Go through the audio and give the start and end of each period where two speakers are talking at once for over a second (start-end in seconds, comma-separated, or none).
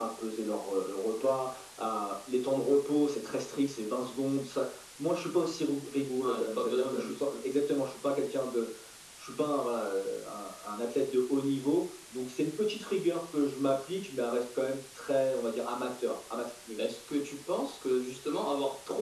6.2-7.5